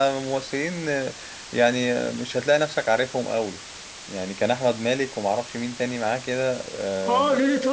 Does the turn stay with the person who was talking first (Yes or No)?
No